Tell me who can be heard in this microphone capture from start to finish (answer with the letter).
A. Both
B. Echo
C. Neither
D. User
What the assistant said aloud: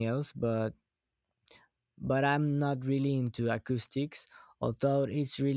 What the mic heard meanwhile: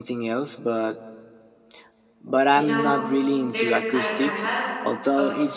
A